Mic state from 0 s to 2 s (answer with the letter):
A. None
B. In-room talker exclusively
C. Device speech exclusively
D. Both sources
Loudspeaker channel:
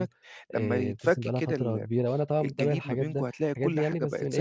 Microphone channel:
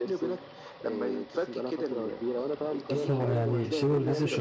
C